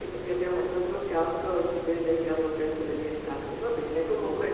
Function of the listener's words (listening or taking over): listening